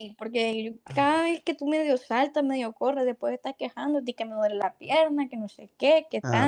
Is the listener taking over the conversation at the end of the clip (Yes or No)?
Yes